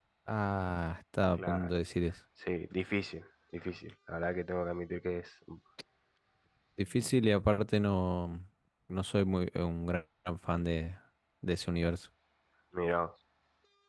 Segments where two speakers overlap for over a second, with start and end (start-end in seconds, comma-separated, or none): none